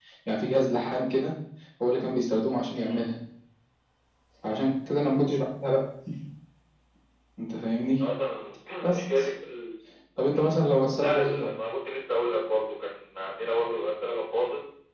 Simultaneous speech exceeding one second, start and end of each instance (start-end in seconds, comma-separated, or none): none